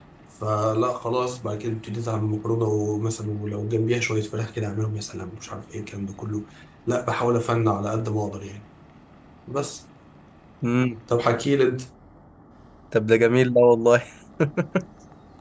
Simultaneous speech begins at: none

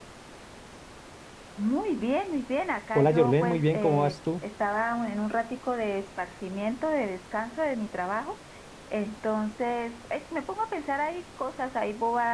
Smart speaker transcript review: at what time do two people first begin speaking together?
3 s

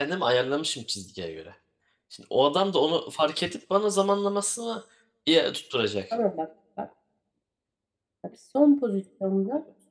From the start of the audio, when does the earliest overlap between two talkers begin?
none

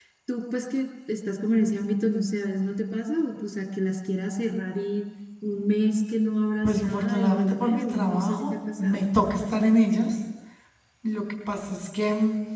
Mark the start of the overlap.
7 s

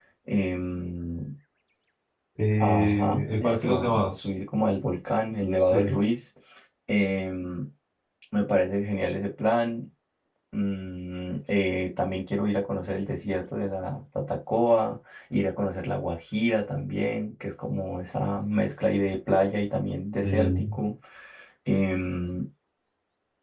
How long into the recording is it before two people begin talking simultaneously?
3 s

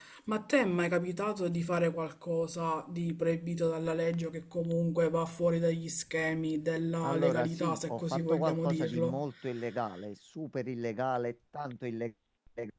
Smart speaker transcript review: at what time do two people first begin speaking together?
7 s

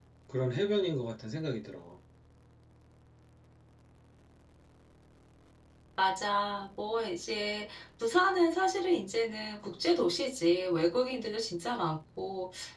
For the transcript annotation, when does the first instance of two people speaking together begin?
none

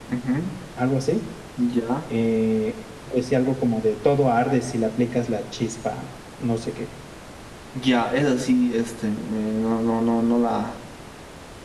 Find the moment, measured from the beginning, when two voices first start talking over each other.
none

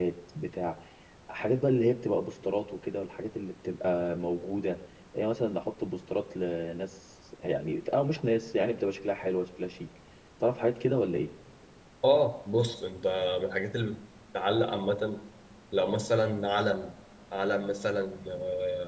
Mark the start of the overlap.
none

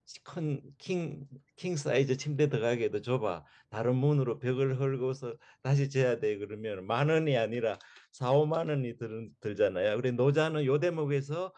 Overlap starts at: none

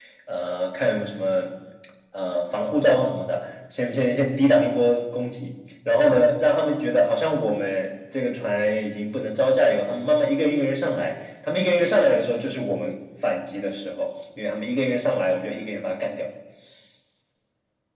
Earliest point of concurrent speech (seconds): none

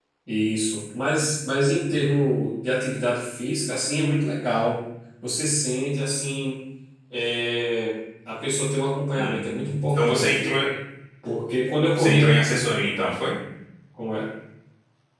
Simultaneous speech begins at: 9 s

